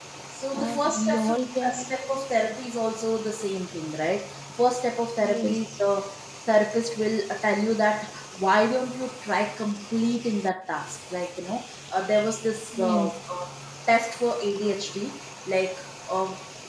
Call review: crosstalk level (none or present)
present